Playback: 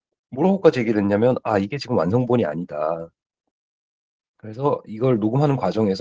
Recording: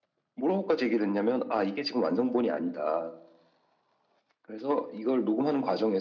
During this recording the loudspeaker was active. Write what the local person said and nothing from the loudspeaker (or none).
none